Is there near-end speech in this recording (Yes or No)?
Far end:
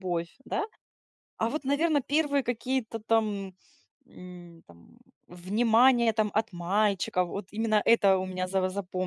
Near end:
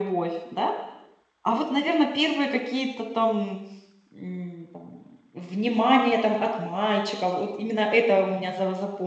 No